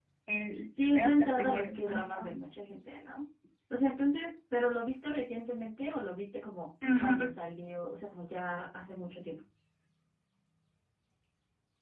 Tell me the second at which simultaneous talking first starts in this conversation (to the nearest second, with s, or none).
1 s